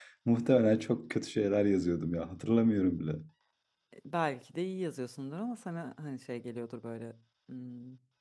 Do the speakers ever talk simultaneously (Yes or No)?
No